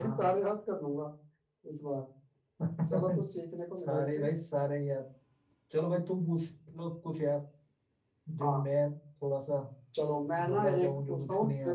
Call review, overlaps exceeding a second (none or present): present